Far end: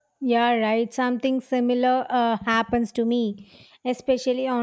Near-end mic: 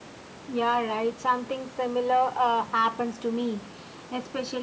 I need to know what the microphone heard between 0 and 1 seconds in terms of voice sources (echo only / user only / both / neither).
echo only